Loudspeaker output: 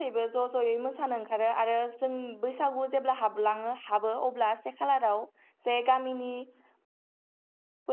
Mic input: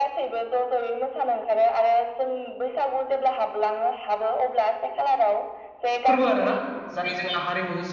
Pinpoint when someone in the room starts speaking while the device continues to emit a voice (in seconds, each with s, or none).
6.0 s